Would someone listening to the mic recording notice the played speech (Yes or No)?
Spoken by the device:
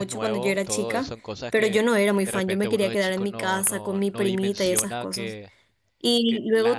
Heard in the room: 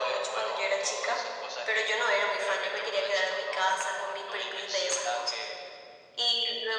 Yes